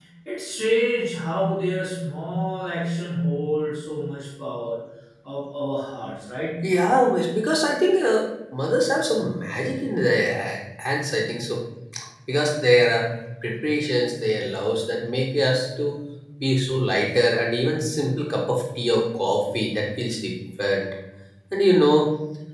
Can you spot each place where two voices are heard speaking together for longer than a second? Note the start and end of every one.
none

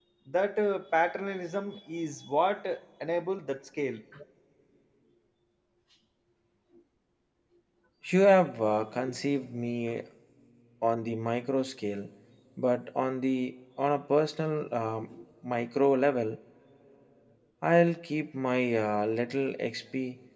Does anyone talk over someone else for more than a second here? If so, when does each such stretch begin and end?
none

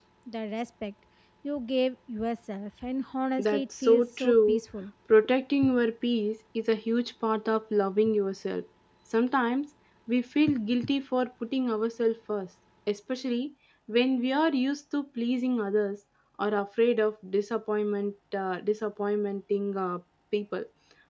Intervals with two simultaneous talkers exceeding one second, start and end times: 3.4-4.6

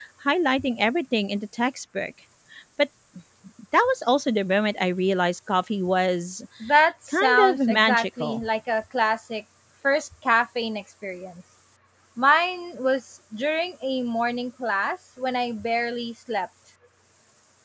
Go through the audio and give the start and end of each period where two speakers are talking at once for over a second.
7.1-8.4

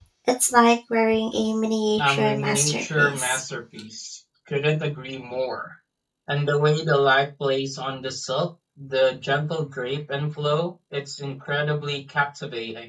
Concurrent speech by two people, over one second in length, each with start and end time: 2.0-3.4

